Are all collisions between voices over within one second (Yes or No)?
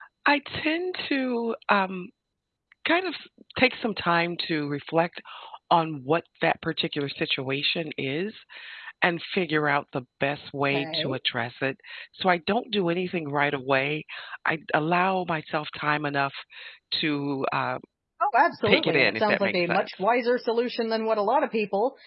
No